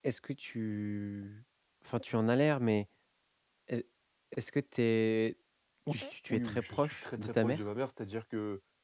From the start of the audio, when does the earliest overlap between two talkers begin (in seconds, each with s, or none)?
5.9 s